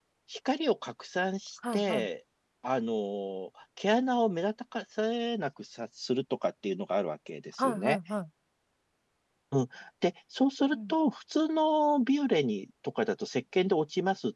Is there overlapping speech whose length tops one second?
No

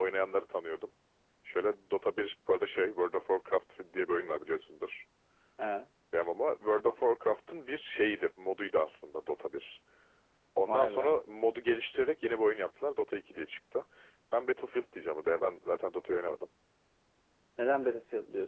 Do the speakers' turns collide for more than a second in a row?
No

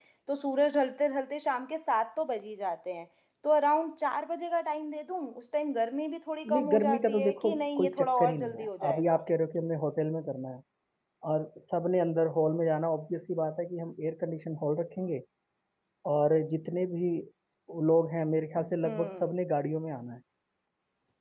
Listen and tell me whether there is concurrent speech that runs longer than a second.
Yes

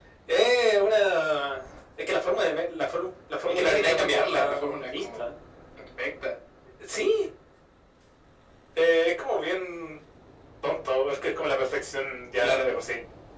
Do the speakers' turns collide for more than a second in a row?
Yes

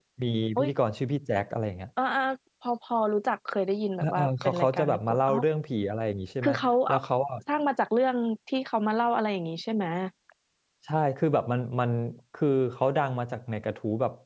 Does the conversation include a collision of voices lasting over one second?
Yes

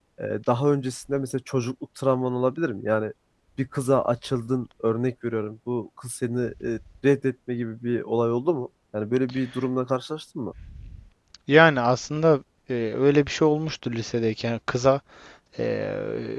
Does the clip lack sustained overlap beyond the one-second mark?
Yes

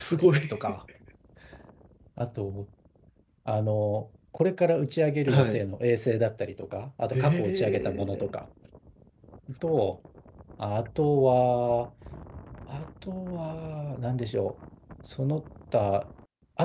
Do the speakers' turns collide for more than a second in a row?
Yes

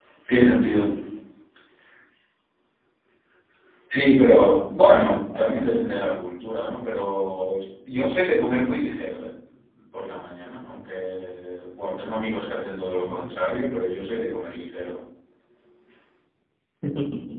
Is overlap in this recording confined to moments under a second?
No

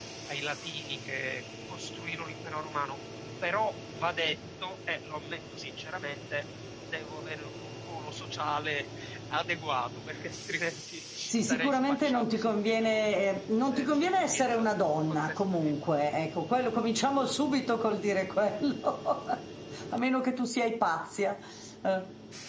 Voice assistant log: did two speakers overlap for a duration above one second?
Yes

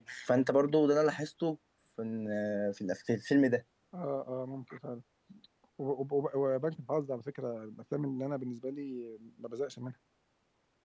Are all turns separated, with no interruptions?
Yes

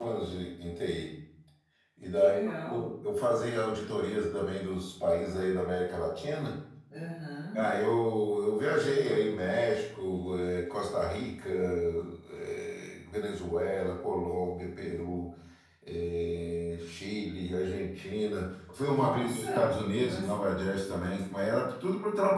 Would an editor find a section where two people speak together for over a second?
Yes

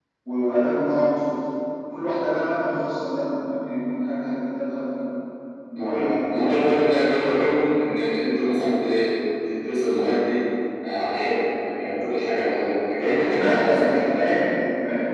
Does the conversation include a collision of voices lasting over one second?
Yes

